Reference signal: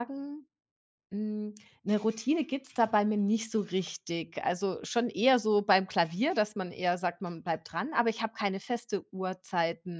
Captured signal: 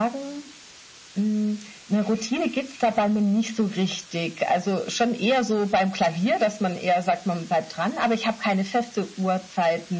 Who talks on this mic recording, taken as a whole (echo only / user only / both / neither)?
echo only